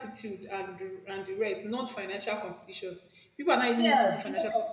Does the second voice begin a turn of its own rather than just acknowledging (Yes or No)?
Yes